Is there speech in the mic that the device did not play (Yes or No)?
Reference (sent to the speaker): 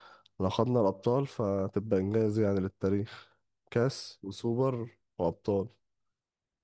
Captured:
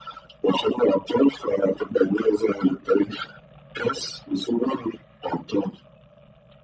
No